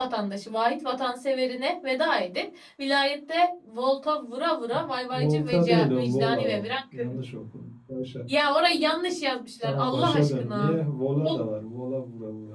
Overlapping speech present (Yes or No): Yes